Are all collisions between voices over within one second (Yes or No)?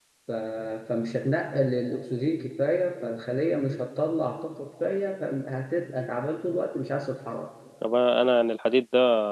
Yes